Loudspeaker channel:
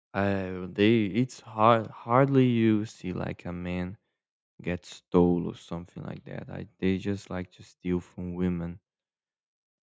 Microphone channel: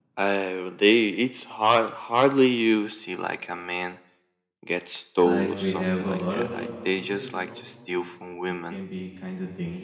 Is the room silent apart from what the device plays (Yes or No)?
No